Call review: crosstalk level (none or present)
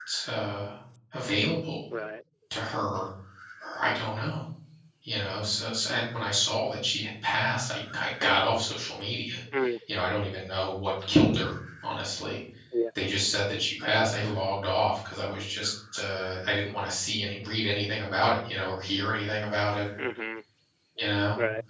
none